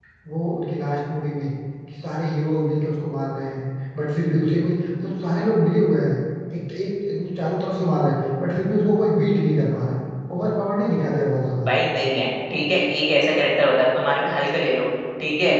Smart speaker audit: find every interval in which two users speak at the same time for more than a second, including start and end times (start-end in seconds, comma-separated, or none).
none